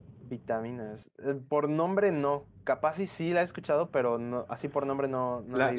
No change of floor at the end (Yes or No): No